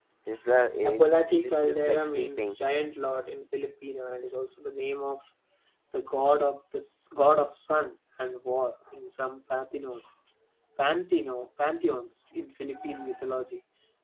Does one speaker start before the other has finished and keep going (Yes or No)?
Yes